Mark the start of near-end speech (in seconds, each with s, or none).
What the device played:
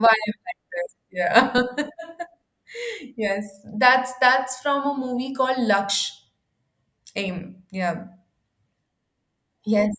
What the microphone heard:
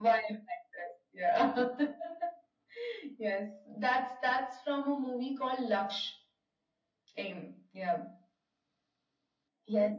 none